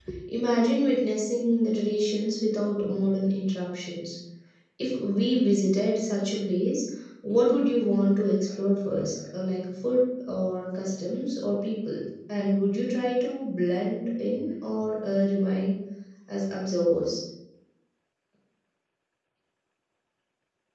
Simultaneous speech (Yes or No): No